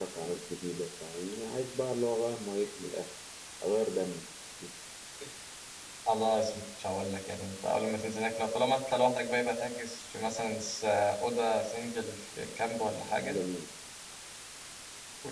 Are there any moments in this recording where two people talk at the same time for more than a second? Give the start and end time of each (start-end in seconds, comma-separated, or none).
none